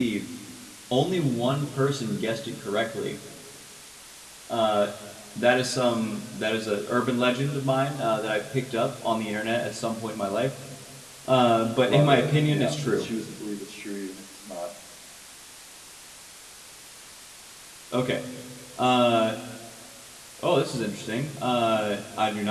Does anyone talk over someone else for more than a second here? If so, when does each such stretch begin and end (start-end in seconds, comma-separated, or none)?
11.8-13.1